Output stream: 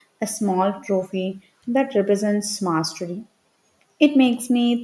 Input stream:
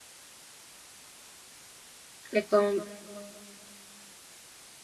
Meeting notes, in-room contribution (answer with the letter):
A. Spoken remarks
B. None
A